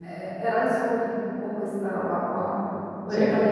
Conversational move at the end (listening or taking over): listening